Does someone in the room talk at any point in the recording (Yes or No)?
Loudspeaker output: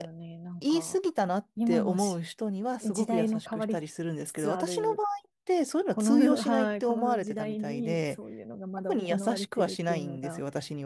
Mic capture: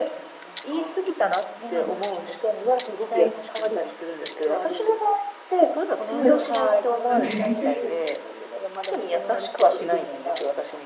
Yes